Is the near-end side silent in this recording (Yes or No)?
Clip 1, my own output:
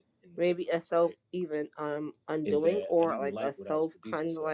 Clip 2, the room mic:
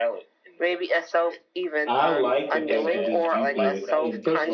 No